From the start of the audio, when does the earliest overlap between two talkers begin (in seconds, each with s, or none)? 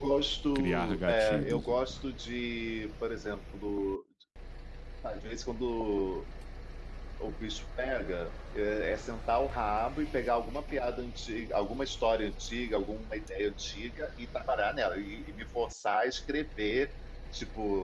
0.6 s